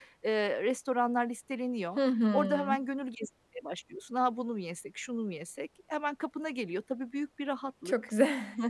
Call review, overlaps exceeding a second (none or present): none